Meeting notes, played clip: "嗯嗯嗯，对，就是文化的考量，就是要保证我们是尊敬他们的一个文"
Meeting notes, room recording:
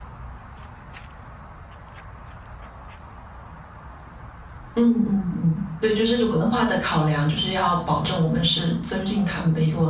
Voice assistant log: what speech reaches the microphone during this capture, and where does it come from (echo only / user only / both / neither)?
echo only